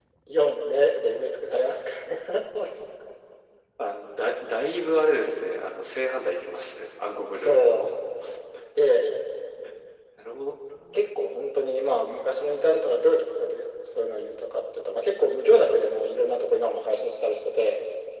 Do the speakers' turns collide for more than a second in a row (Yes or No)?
No